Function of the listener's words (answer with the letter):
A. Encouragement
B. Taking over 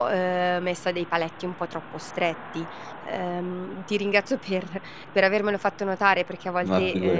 A